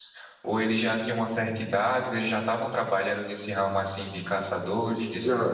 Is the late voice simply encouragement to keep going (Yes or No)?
No